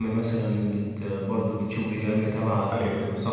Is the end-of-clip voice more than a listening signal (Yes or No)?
No